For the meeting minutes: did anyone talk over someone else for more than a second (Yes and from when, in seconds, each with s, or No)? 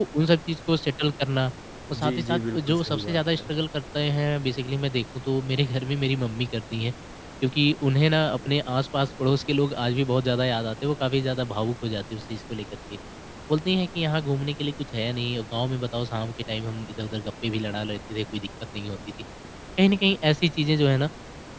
Yes, from 2.0 s